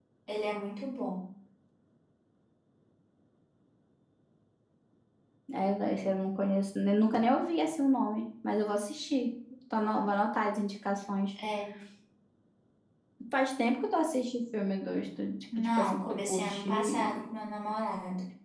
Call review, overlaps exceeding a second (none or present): present